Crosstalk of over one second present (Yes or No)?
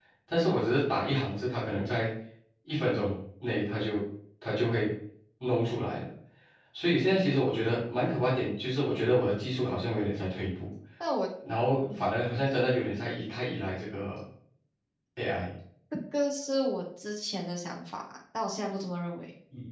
No